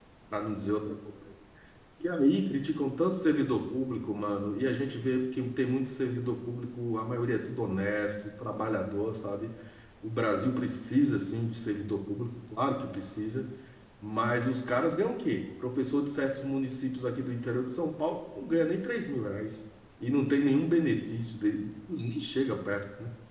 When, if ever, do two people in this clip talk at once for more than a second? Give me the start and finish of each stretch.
none

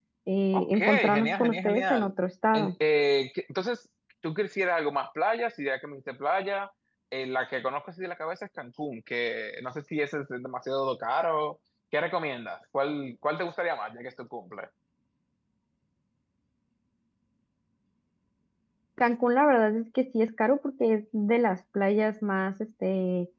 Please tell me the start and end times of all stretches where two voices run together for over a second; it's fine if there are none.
0.5-2.1

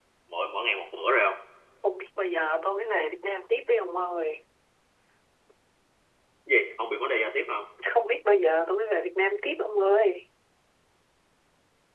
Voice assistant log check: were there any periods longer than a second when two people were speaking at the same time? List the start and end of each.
none

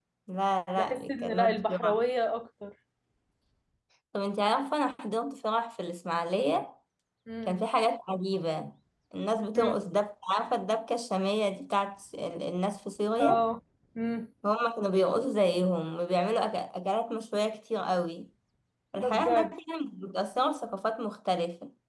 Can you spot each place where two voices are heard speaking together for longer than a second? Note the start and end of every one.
0.8-2.0

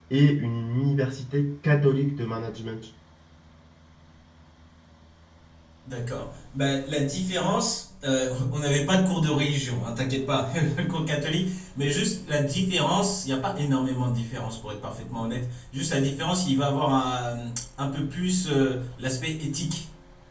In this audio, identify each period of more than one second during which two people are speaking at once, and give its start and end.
none

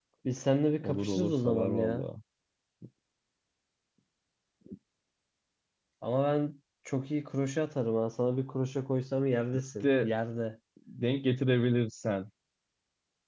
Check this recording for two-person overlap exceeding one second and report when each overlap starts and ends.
0.8-2.0

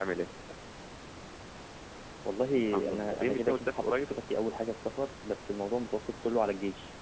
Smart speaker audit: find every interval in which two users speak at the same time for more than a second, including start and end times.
2.5-4.0

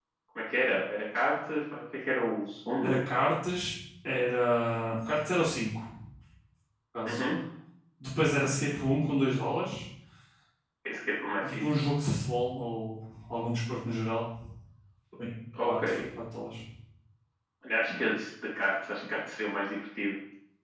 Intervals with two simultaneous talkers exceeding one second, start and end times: none

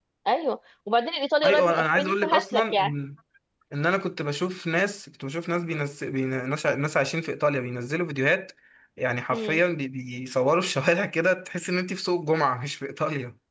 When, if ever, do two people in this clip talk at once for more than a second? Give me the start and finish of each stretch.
1.4-2.9

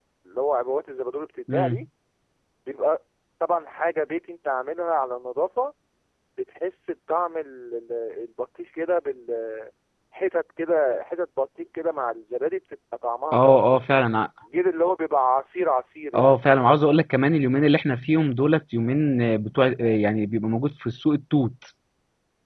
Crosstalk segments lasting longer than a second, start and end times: none

